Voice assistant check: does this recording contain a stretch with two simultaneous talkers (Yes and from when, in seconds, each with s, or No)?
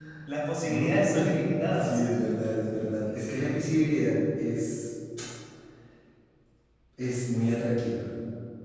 Yes, from 0.6 s